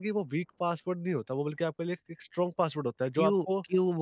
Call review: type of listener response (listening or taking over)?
taking over